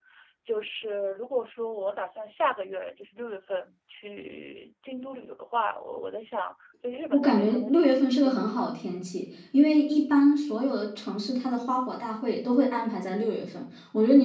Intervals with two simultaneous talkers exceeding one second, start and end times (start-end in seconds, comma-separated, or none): 7.1-8.6